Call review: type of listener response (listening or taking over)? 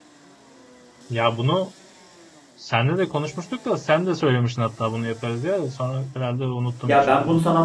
taking over